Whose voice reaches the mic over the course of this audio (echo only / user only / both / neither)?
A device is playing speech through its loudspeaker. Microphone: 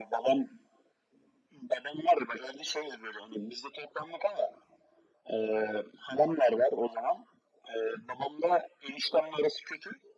echo only